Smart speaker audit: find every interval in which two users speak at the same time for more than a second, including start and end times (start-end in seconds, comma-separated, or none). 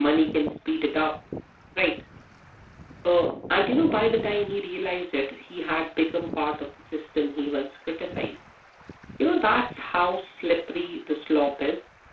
none